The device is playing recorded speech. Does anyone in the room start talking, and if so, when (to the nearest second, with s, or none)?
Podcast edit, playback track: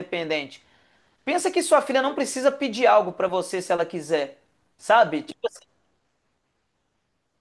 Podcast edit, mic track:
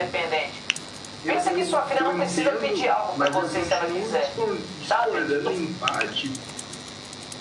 1 s